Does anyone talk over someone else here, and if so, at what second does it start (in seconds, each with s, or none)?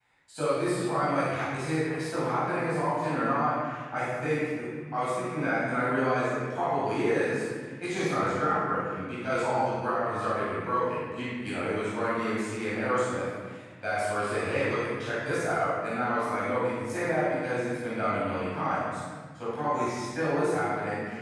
none